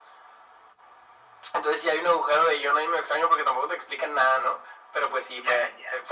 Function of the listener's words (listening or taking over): listening